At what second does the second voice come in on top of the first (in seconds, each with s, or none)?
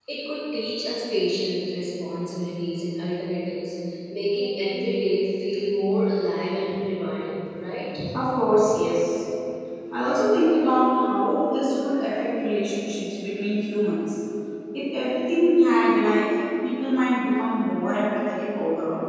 none